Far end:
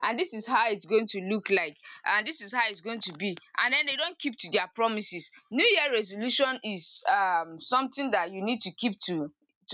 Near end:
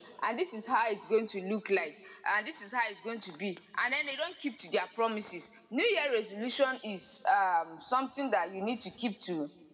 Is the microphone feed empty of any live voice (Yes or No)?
Yes